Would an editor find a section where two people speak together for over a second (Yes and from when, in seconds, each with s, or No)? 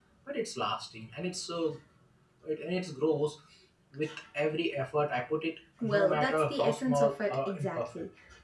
Yes, from 5.8 s